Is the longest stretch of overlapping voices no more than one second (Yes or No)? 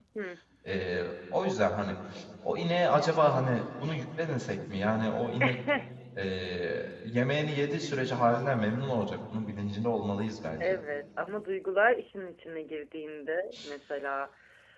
Yes